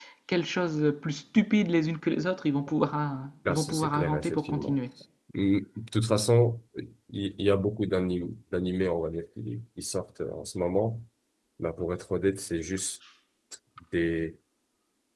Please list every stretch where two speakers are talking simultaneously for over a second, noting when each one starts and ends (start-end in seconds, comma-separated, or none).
3.5-4.8